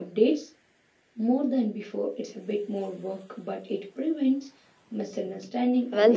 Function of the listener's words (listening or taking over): taking over